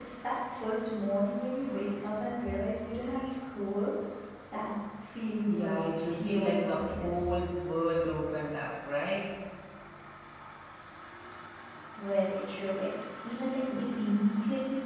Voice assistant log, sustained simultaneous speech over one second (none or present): present